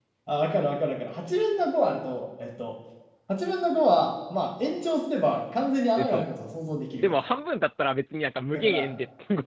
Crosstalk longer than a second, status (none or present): none